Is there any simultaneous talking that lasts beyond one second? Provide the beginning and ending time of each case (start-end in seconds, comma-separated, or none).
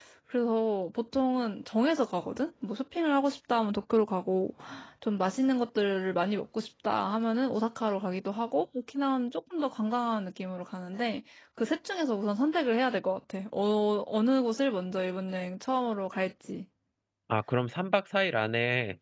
none